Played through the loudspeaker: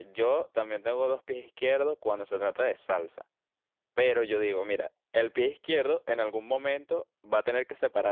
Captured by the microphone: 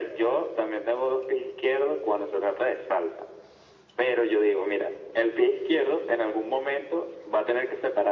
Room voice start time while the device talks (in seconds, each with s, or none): none